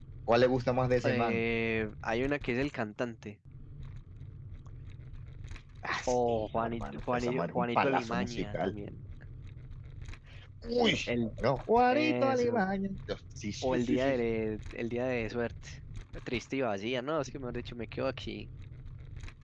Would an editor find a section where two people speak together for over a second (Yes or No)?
Yes